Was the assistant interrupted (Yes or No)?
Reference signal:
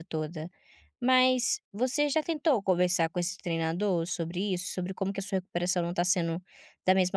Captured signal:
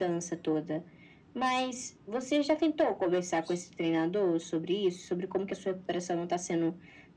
No